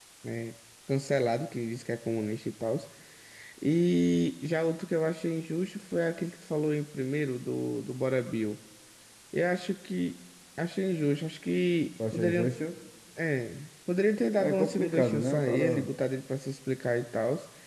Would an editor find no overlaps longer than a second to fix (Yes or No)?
No